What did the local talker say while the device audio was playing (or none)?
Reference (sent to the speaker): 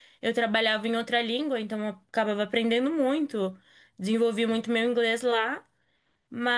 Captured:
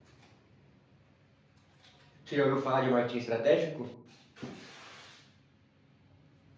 Você já ouviu falar de marketing estratégico?